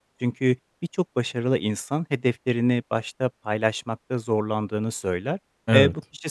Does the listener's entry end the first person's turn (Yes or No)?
No